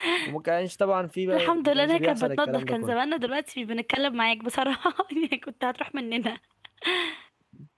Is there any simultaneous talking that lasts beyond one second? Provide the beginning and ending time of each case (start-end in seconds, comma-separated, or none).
1.3-2.9